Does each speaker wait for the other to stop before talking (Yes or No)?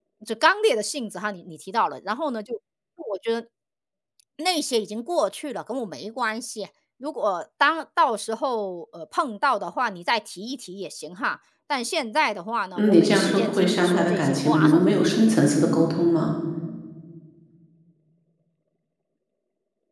No